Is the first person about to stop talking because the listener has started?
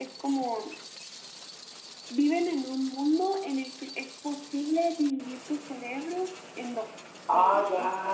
Yes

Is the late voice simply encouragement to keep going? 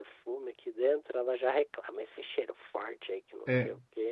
No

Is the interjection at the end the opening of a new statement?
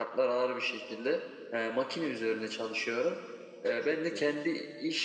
No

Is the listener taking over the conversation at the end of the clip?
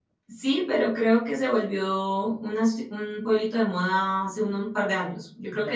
No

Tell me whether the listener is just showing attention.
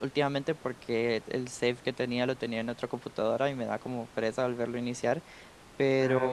Yes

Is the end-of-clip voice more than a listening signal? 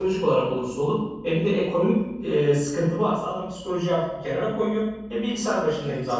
No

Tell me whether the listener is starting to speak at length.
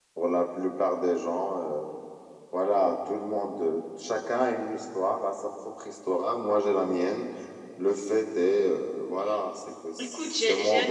Yes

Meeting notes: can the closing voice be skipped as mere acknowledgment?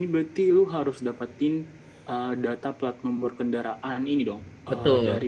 Yes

